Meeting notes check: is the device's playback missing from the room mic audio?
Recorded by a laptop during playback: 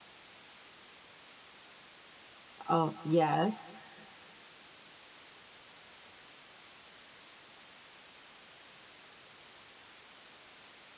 Yes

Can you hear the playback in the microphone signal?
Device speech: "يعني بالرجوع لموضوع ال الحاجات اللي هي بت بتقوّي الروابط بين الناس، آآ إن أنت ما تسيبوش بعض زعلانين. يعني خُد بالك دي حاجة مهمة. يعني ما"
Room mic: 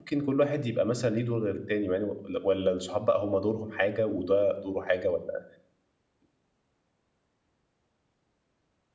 No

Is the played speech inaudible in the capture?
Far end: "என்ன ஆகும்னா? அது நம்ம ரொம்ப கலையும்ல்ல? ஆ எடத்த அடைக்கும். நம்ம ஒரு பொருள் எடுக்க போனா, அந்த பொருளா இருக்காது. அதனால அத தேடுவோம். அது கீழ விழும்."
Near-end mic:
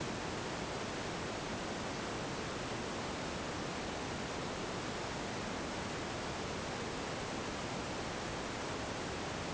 Yes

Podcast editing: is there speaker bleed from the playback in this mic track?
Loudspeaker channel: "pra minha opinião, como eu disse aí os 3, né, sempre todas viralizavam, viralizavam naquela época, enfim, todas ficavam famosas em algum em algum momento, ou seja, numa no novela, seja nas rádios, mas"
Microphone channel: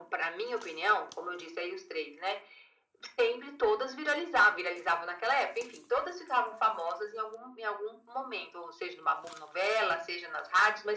Yes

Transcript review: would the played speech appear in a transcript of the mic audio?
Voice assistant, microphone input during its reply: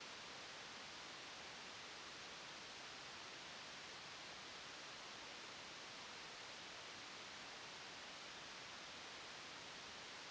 No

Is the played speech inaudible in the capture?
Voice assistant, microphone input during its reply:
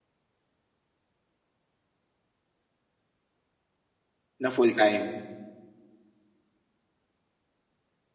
Yes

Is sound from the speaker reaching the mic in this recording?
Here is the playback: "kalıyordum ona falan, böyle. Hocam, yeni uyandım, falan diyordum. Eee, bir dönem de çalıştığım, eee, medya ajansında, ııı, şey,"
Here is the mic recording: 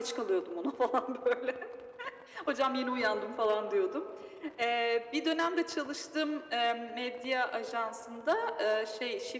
Yes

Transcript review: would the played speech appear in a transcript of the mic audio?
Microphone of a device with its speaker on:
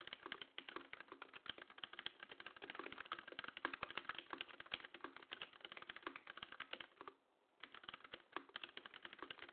No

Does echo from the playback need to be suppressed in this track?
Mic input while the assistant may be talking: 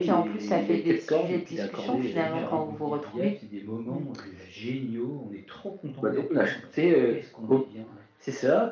Yes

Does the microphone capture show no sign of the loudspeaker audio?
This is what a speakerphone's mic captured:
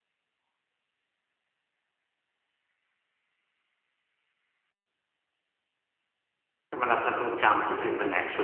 Yes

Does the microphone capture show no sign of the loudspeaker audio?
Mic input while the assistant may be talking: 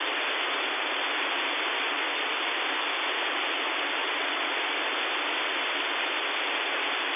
Yes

